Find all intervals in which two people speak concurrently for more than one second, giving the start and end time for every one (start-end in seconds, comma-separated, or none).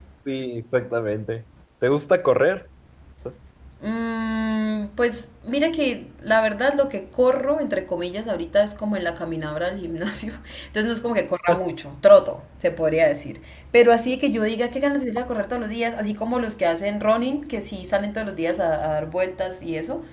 none